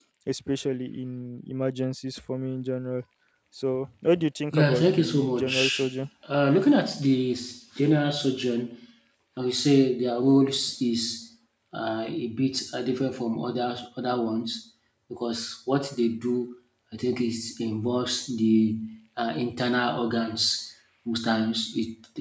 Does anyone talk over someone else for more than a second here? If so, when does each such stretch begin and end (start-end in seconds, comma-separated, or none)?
4.5-5.9